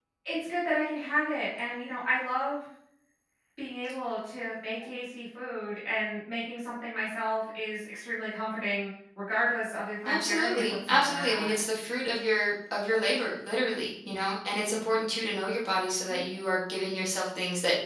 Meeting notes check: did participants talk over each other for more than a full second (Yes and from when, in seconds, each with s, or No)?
Yes, from 10.0 s